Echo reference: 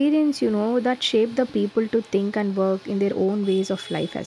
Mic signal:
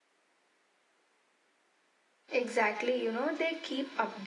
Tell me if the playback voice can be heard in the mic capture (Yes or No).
No